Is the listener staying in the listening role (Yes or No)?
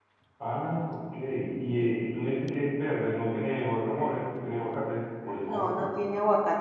No